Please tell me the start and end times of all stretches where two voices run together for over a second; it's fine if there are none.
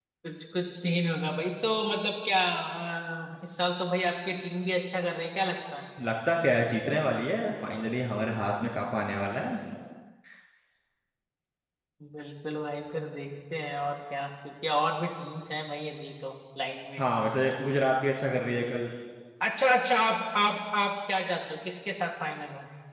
none

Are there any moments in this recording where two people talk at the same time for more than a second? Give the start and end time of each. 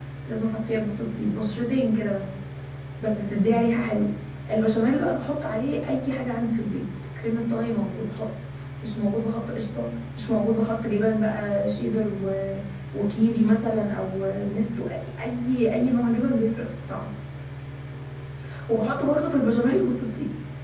none

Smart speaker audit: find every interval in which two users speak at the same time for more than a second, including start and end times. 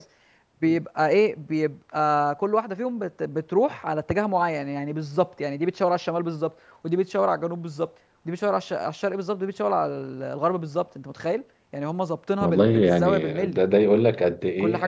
12.4-13.6

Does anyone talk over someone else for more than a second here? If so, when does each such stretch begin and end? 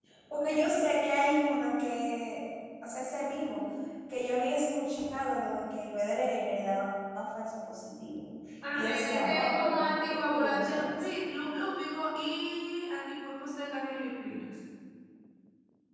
8.7-11.2

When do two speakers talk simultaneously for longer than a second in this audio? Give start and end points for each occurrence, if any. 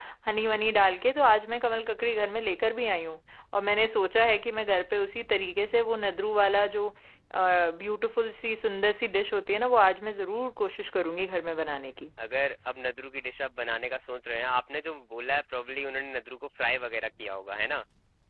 none

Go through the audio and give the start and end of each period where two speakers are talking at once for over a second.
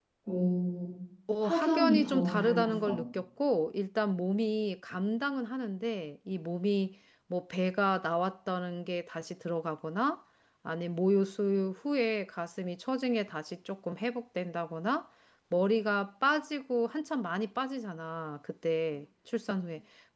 1.4-3.0

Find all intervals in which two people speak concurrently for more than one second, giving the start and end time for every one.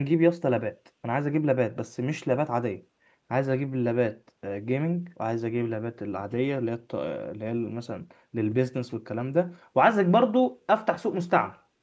none

